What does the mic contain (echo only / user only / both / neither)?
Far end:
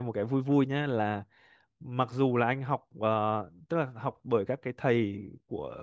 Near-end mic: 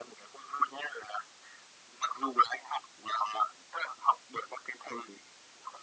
echo only